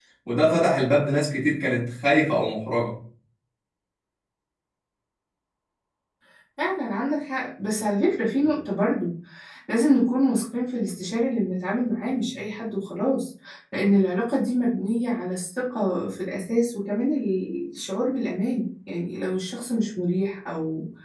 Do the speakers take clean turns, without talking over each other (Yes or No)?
Yes